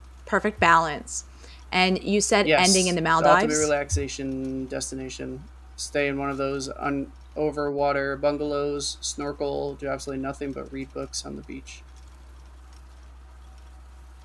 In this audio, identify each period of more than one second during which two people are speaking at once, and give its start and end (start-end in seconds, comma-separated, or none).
2.4-3.7